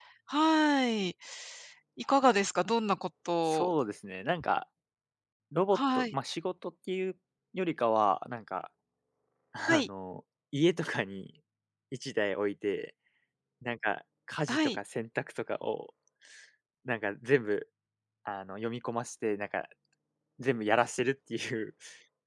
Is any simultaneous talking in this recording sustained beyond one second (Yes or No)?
No